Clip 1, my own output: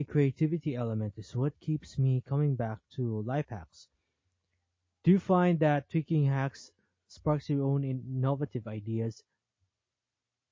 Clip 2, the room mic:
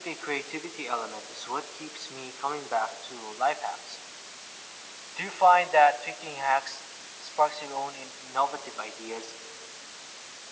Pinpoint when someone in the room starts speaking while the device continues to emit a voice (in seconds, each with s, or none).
none